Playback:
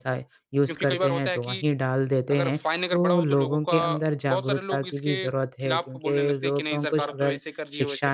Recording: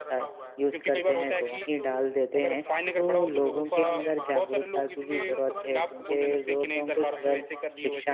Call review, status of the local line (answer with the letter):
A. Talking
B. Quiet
A